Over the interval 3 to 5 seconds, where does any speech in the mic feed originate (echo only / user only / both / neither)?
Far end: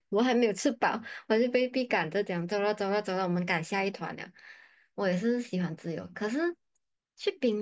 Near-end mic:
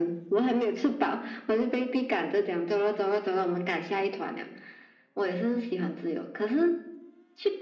echo only